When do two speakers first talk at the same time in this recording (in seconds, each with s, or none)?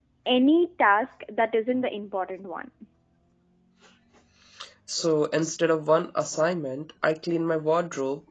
none